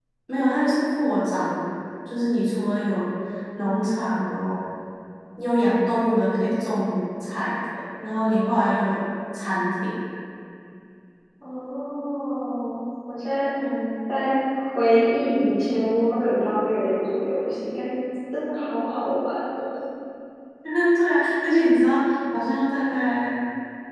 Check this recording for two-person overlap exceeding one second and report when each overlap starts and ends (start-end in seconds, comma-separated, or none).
none